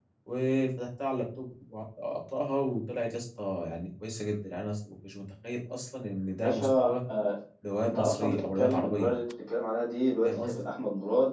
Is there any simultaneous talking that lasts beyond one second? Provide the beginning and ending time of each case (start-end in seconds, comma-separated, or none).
7.8-9.1